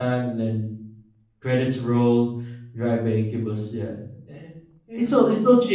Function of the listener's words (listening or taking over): listening